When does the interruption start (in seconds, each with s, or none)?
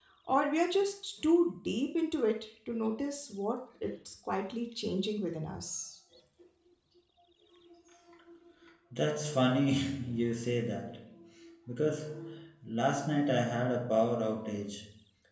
none